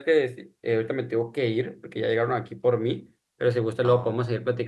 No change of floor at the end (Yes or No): Yes